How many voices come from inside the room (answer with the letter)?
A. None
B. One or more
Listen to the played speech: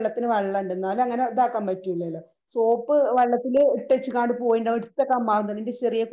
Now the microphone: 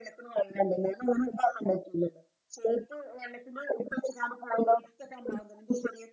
A